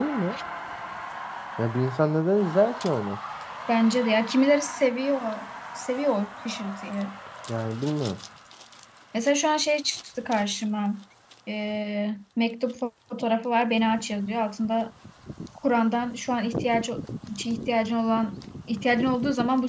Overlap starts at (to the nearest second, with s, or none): none